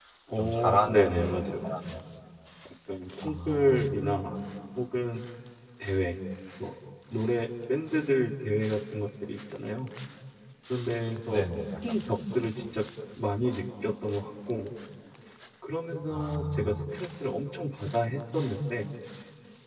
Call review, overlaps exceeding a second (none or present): present